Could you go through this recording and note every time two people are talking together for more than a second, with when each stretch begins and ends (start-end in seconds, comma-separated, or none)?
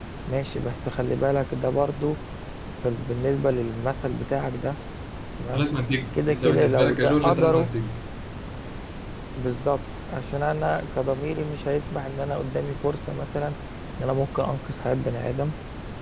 6.1-7.7